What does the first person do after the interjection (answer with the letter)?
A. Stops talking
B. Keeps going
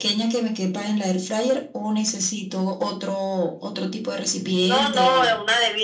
A